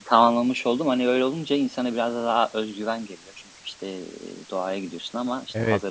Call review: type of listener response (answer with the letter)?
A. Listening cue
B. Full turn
B